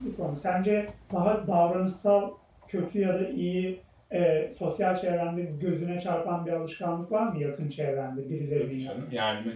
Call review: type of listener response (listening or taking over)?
taking over